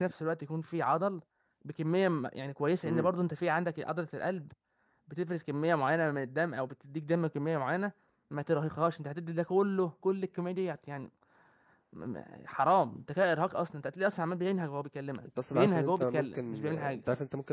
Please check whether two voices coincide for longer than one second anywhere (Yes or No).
Yes